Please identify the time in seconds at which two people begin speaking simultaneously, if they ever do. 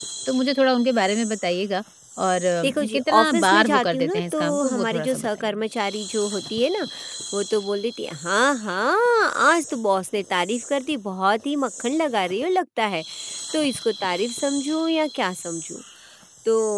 3 s

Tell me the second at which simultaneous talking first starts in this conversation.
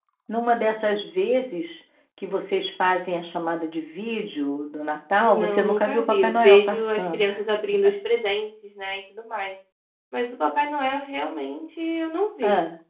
5 s

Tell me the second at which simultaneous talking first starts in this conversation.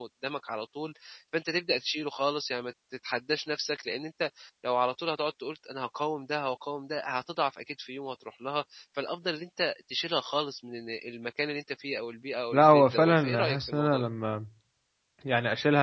13 s

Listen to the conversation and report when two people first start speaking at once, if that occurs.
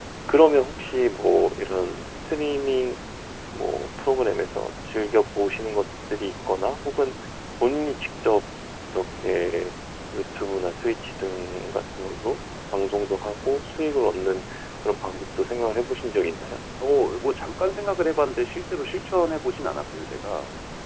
none

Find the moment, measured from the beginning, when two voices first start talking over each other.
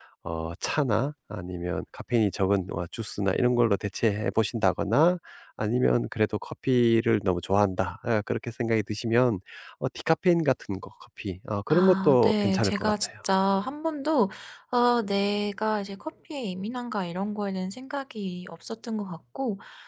12 s

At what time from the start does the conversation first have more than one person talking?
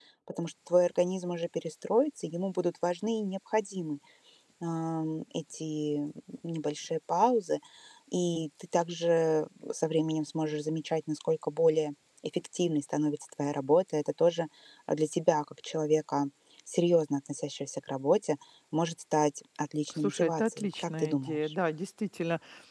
20 s

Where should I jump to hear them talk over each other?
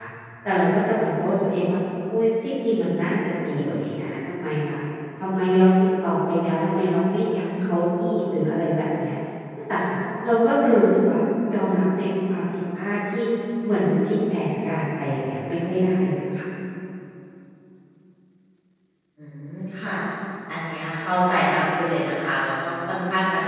none

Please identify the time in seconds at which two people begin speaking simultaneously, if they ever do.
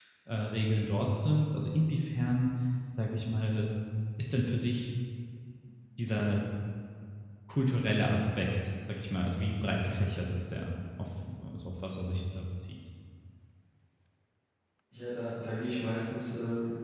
none

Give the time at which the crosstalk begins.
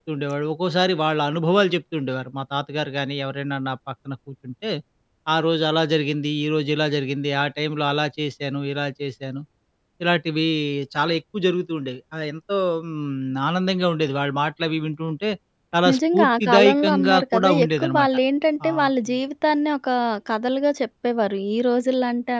16 s

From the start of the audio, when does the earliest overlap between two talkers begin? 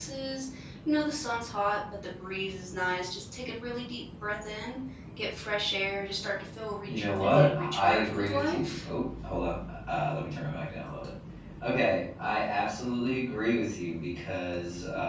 7 s

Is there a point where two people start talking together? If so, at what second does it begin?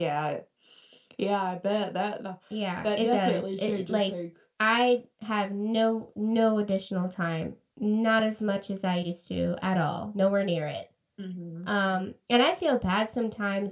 3 s

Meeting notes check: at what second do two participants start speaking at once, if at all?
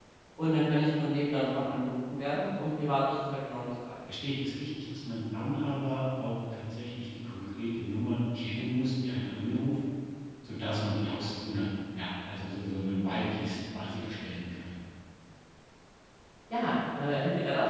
none

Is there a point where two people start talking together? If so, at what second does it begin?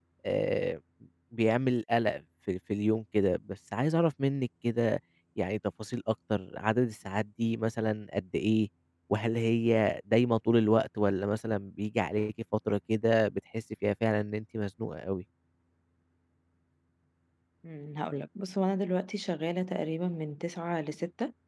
none

